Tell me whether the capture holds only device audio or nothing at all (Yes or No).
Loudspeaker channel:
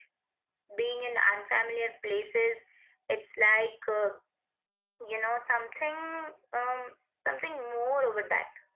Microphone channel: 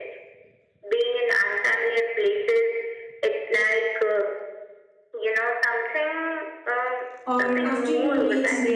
No